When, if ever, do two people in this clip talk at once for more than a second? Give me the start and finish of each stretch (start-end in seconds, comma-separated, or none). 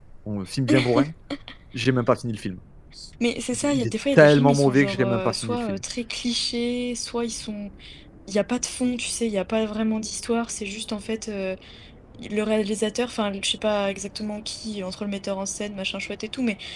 3.5-5.8